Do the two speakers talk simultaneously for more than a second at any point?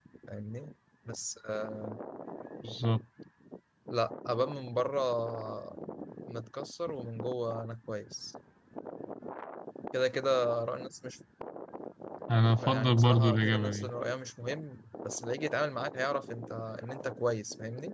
Yes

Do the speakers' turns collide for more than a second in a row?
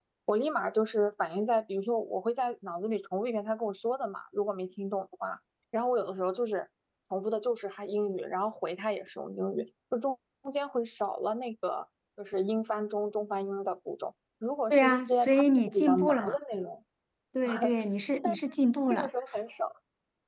Yes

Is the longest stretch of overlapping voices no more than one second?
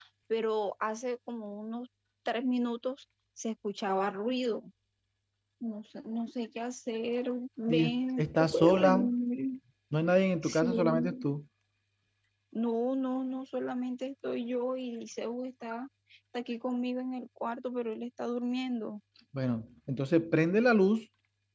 No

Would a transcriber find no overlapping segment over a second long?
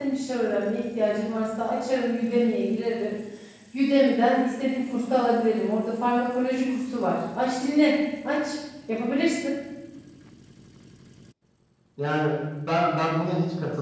Yes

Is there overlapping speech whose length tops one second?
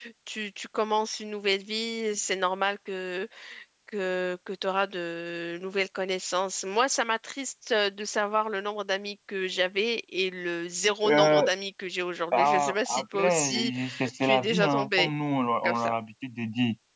Yes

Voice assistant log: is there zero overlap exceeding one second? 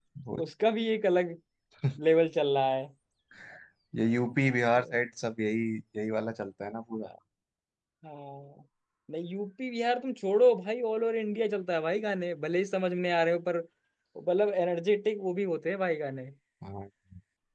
Yes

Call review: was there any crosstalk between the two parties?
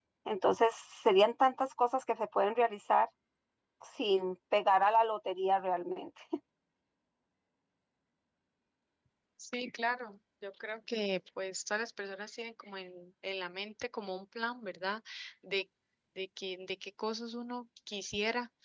No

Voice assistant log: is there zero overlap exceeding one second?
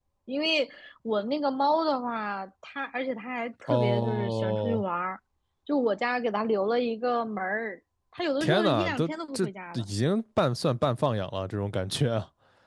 No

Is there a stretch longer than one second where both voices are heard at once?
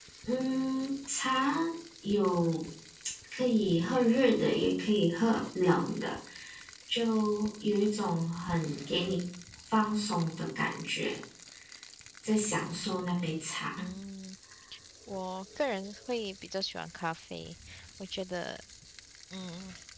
No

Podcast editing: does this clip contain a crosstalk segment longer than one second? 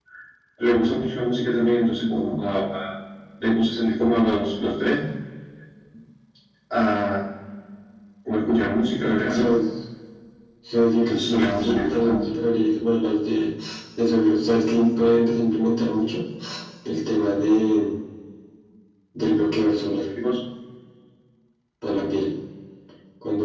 Yes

